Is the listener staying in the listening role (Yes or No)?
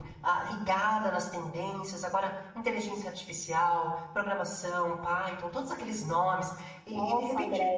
No